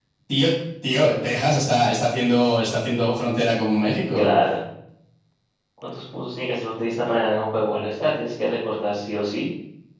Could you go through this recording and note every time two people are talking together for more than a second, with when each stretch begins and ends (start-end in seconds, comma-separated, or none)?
none